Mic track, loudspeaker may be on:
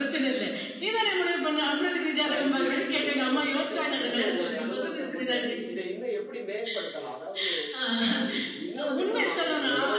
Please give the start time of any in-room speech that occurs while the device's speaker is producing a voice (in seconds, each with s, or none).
2.2 s